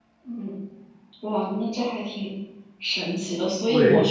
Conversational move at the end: listening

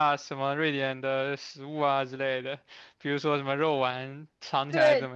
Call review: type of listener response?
taking over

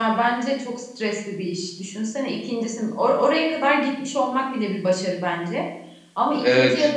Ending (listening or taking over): listening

